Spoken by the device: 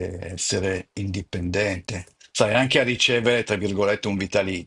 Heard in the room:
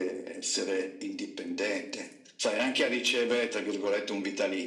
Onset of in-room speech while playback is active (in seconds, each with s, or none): none